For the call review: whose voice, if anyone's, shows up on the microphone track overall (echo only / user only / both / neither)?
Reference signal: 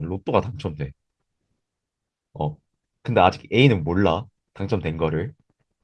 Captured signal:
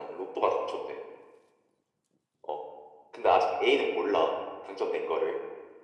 echo only